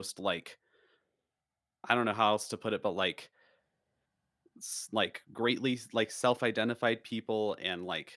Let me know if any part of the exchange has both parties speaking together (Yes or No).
No